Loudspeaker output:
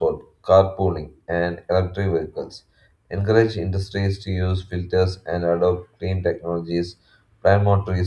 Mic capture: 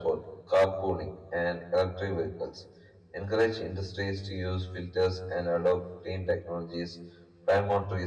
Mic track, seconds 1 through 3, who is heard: echo only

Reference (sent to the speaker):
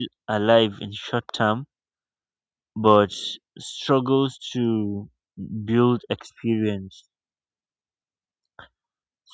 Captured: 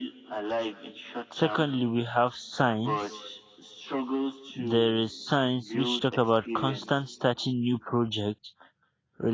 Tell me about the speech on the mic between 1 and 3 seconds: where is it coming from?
both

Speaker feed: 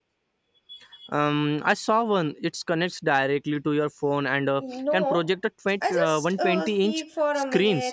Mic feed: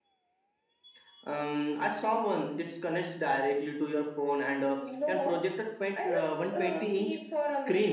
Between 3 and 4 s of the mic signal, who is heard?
echo only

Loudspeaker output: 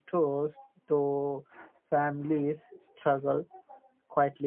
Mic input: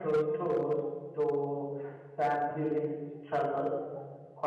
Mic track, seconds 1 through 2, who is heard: echo only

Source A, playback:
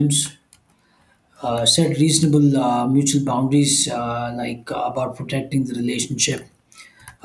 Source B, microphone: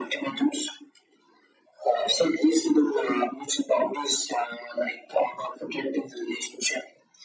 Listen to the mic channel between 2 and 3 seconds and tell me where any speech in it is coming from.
echo only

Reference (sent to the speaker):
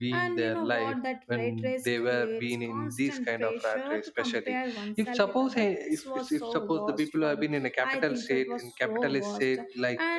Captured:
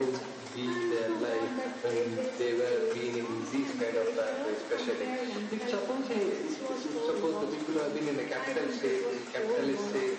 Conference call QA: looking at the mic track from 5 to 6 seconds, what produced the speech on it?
echo only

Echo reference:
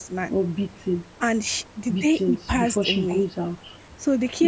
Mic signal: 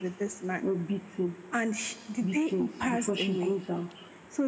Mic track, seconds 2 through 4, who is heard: echo only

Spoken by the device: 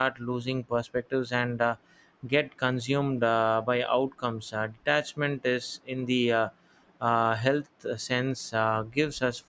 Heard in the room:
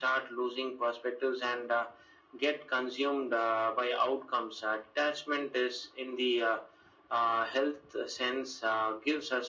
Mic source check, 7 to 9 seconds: echo only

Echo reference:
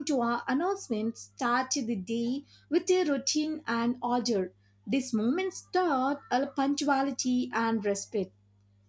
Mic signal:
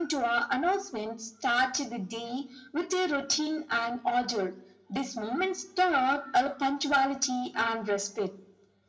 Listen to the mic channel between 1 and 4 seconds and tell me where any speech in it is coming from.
echo only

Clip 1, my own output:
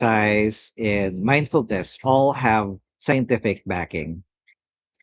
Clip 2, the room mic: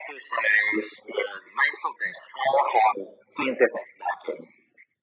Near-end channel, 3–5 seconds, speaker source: echo only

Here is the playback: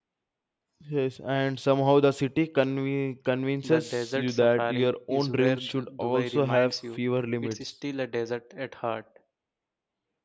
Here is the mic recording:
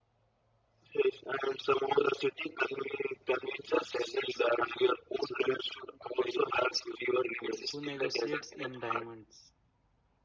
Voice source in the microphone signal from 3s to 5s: echo only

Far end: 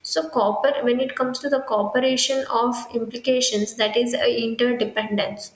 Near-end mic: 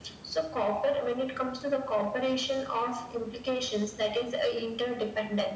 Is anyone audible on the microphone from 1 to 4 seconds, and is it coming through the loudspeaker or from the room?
echo only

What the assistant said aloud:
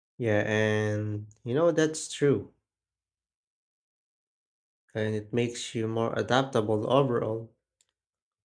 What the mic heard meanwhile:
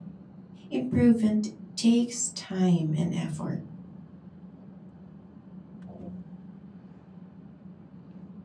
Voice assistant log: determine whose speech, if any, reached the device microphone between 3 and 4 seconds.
user only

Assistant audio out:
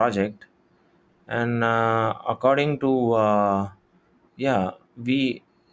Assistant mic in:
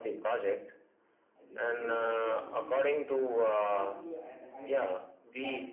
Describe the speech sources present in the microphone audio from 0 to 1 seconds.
echo only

